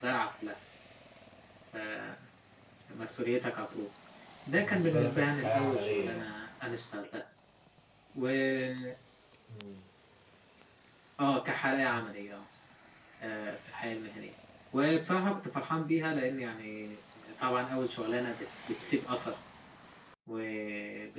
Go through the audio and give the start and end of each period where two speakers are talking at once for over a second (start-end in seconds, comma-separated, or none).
4.6-6.2